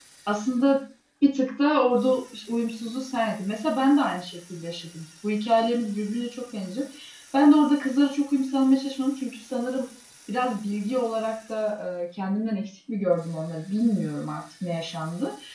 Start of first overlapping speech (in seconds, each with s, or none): none